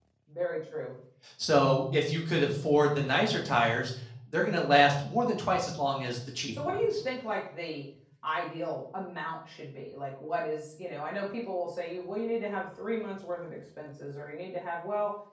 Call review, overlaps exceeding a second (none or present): none